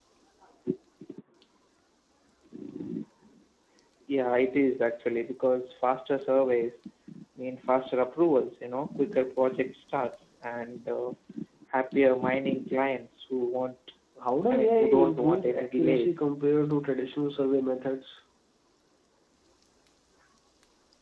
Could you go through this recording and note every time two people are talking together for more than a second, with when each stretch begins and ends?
14.5-16.2

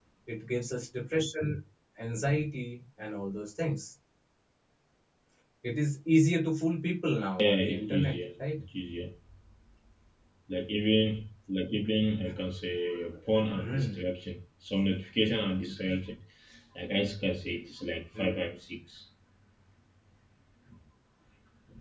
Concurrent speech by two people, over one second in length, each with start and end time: 7.4-8.6

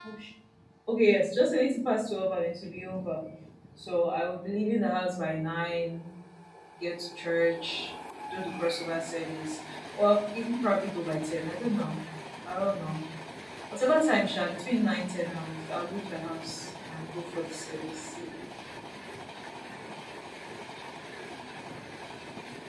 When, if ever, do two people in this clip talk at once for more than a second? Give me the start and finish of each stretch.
none

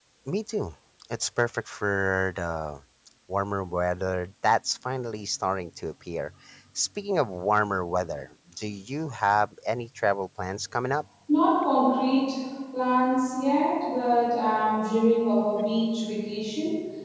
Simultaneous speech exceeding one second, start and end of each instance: none

